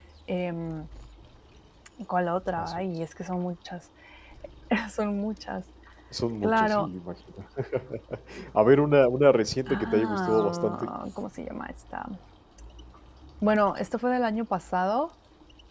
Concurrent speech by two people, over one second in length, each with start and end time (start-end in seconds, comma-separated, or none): 9.7-10.9